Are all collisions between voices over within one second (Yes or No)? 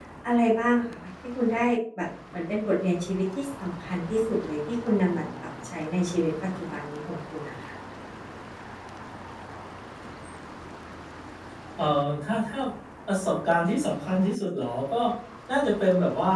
Yes